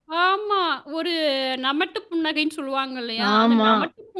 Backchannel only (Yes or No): Yes